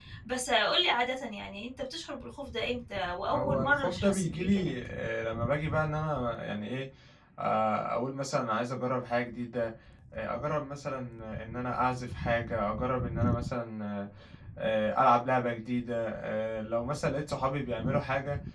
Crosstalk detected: Yes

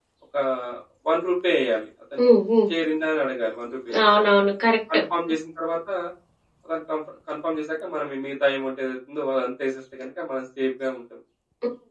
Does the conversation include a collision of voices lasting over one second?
No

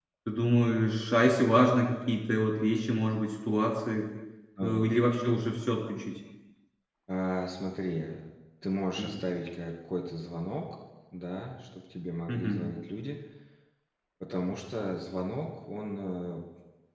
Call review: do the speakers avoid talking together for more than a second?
Yes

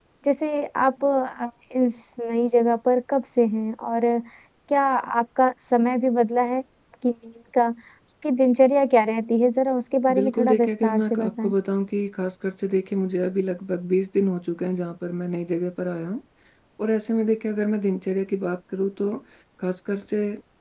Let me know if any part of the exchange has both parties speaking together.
Yes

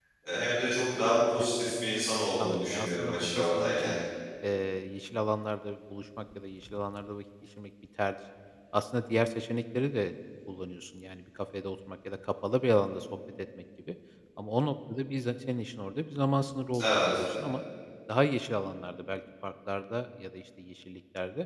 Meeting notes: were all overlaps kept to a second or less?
No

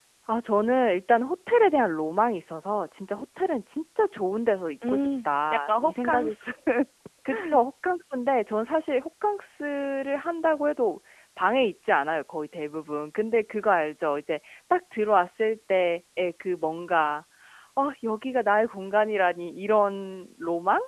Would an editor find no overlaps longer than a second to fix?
No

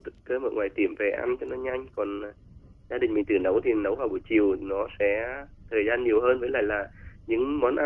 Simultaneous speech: No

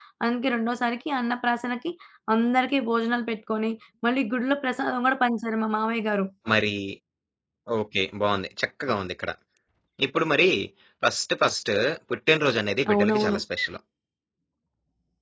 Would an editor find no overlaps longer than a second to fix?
Yes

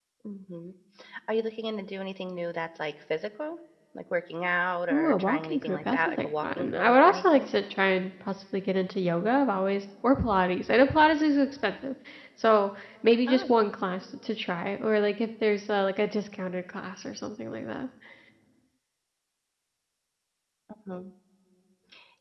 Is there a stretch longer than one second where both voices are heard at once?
Yes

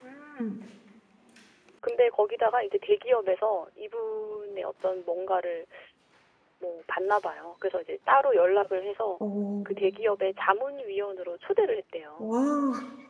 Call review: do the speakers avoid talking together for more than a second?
Yes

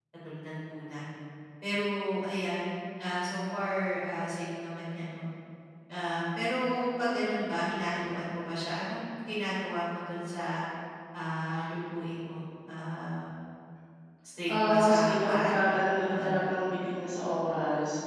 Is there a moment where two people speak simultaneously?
Yes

